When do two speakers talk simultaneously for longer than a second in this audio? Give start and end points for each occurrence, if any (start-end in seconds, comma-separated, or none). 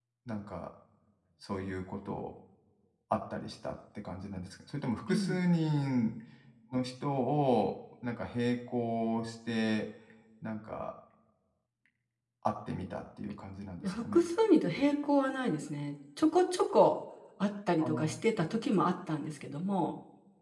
none